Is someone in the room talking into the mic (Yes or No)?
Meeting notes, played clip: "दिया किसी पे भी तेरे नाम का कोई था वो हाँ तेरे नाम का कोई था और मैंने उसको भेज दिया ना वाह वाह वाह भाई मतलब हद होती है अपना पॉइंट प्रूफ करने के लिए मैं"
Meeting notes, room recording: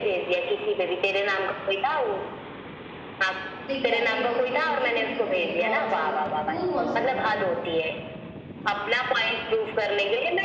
Yes